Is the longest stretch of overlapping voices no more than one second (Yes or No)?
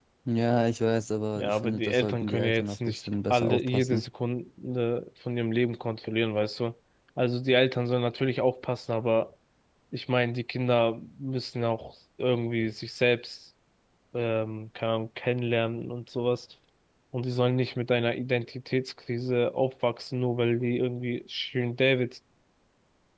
No